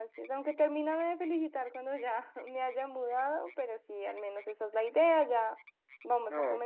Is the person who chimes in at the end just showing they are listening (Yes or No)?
Yes